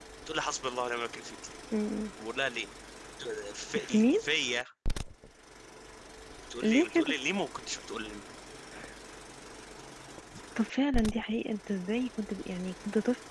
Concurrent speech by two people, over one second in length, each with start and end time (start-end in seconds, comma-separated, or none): none